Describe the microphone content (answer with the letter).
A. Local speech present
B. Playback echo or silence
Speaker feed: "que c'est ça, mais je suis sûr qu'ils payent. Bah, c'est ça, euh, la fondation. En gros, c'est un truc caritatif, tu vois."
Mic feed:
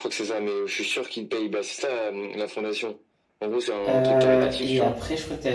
A